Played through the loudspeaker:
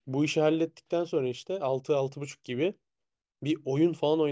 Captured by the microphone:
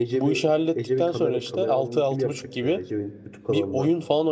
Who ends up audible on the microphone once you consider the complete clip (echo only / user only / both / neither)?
both